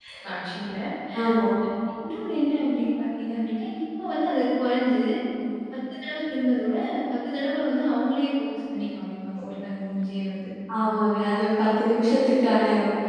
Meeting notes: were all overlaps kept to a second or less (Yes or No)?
Yes